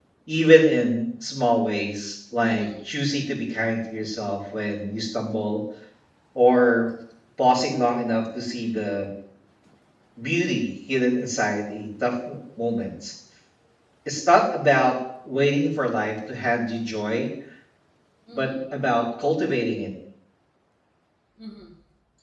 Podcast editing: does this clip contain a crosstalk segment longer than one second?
No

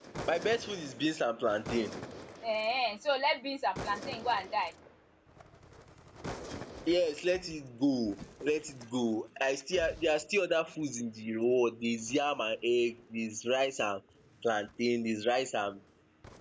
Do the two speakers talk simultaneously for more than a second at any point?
No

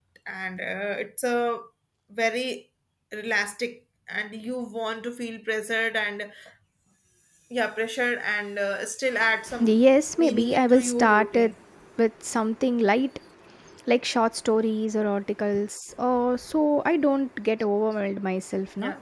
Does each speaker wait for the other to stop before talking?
No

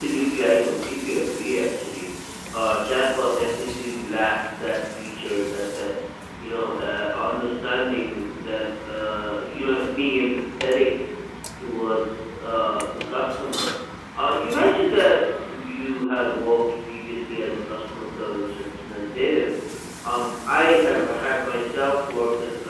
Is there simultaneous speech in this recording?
No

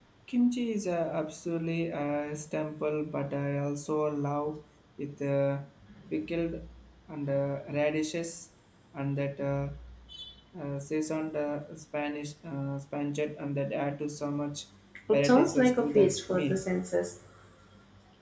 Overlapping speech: Yes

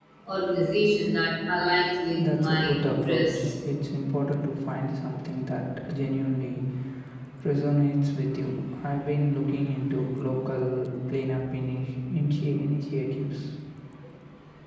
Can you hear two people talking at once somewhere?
Yes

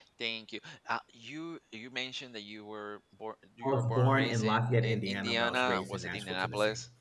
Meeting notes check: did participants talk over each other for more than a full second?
Yes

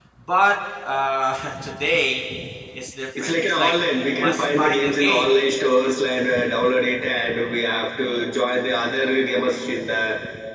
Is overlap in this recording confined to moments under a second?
No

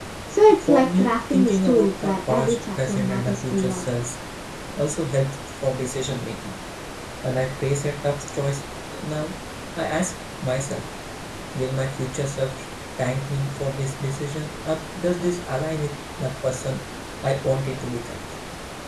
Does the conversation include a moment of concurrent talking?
Yes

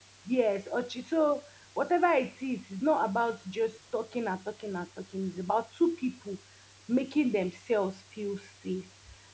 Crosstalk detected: No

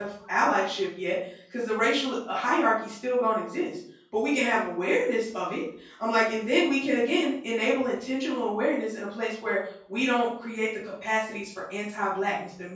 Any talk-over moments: No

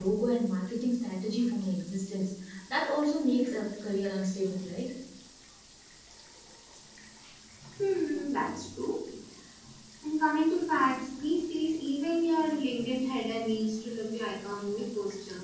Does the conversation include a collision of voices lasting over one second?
No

